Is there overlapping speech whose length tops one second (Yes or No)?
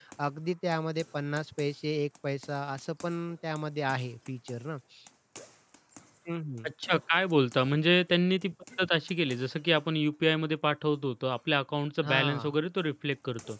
No